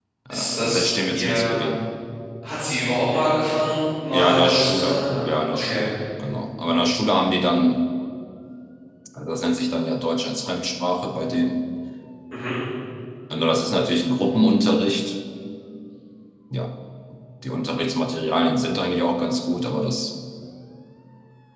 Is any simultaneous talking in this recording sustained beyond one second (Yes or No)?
Yes